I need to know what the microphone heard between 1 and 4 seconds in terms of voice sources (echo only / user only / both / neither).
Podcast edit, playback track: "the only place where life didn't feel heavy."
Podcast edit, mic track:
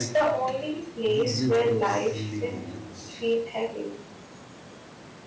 both